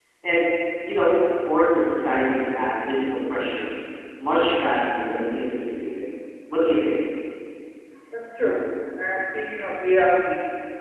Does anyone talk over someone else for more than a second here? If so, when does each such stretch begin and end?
none

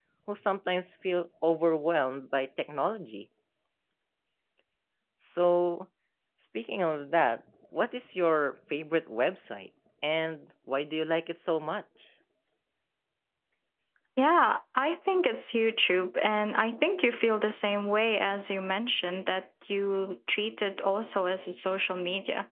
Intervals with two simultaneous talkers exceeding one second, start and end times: none

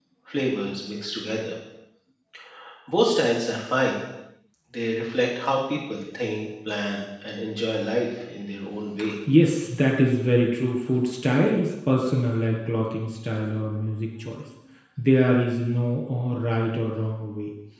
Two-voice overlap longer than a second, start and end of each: none

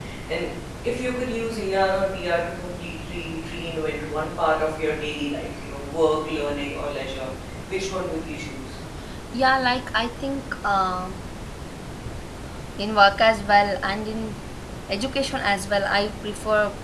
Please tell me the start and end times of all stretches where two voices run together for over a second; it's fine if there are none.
none

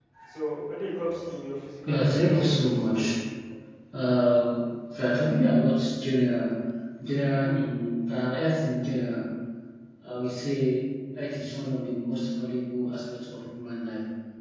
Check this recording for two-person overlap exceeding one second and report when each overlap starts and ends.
1.9-3.2

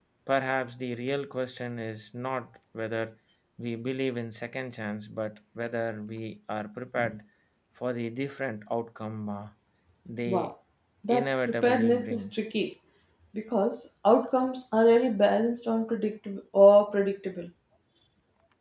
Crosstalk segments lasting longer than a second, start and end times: 11.1-12.3

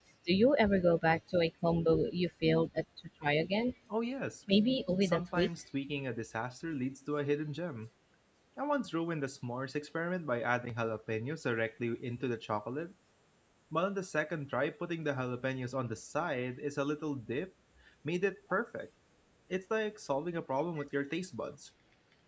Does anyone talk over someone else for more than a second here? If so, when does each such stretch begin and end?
none

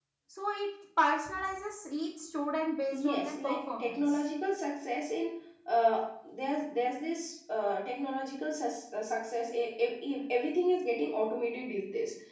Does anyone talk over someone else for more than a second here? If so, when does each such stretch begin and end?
2.9-4.2

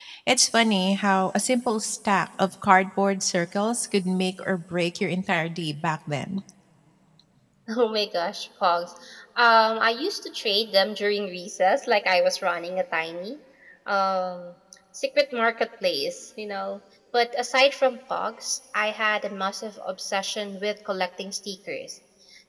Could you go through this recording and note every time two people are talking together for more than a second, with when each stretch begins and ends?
none

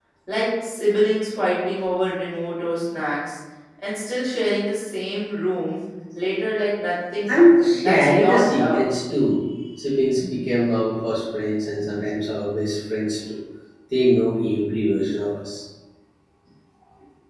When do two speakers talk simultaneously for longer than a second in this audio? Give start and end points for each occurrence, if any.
7.3-8.8

